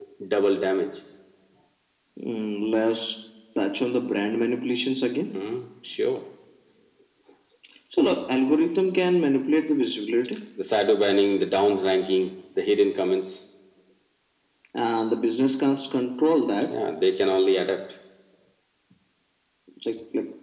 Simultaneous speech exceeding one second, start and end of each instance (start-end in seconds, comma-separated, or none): none